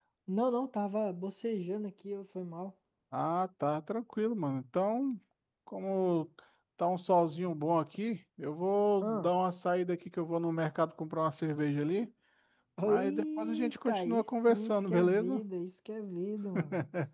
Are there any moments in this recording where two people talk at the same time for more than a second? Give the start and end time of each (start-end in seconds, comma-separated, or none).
12.8-15.4